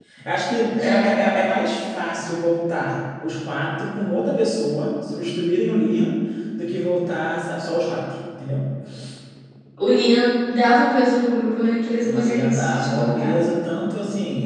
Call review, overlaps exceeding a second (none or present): present